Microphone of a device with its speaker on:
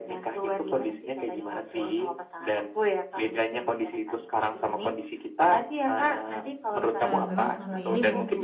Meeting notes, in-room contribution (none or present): present